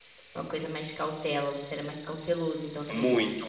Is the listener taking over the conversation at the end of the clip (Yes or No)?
Yes